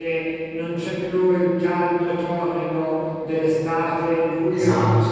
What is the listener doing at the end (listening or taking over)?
taking over